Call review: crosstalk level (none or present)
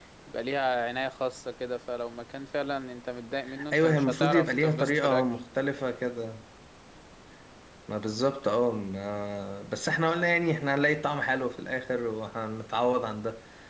present